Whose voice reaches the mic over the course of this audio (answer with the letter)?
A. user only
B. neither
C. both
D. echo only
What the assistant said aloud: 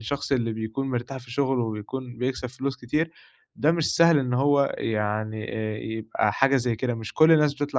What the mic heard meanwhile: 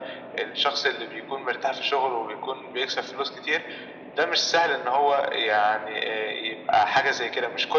D